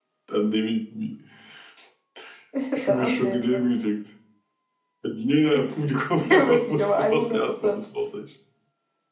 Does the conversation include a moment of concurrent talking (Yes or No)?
Yes